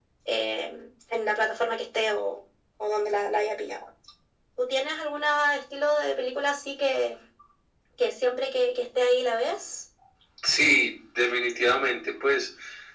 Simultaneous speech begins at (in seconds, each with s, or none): none